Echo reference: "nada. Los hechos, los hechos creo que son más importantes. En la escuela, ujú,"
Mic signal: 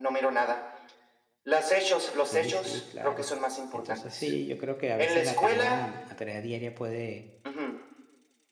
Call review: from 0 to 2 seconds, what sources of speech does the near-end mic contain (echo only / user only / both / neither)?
echo only